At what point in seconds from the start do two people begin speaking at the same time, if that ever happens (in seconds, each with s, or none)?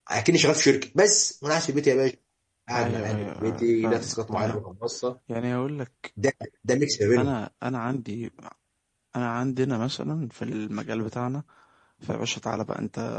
2.7 s